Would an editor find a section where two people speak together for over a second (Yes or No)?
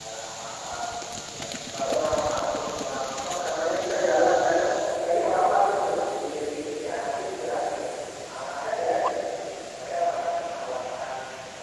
No